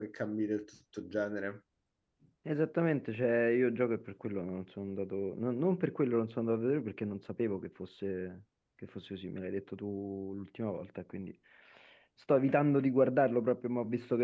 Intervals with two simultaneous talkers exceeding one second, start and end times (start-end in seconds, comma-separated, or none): none